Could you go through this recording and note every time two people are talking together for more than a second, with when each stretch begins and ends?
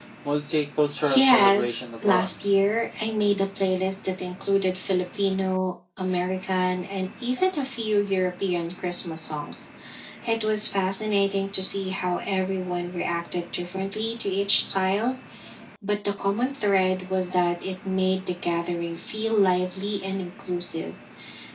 1.1-2.3

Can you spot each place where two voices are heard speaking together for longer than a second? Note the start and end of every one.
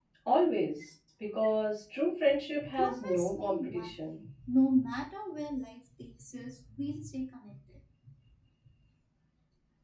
2.8-4.2

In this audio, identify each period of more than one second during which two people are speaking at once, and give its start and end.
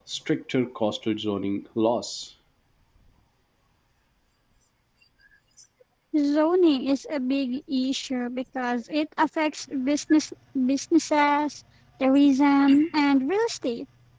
none

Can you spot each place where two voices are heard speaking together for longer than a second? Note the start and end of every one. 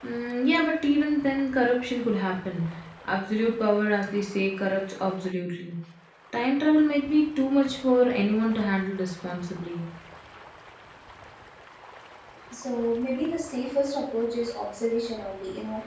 none

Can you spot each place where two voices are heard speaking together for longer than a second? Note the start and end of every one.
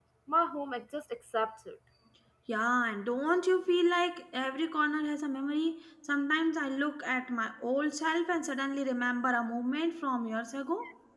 none

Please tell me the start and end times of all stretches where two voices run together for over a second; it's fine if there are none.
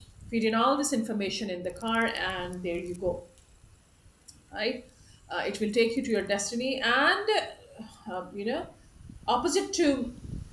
none

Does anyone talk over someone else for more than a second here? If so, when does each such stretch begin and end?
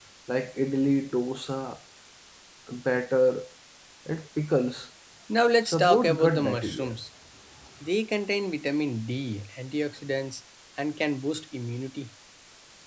5.7-6.9

